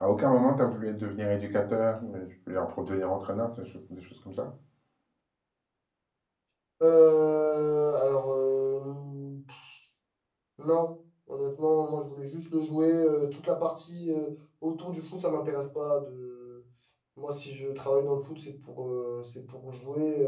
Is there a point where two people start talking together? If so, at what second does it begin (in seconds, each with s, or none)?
none